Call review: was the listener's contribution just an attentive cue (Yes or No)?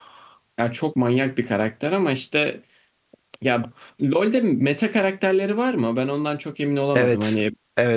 No